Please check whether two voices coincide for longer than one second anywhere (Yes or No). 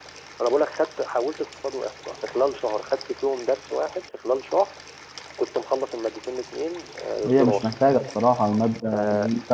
No